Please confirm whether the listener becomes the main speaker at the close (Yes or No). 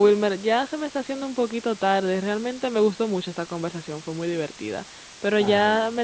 No